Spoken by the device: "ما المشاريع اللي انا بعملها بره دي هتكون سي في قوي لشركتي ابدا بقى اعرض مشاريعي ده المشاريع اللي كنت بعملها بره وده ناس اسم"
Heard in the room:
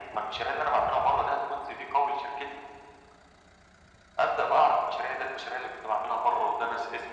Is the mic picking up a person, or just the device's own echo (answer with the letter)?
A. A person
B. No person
B